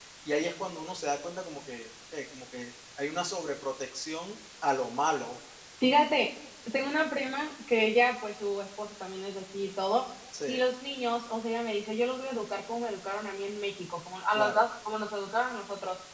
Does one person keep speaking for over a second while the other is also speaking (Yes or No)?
No